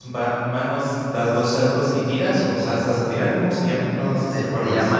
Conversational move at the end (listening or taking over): taking over